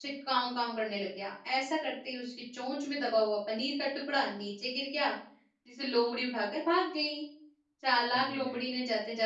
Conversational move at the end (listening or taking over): listening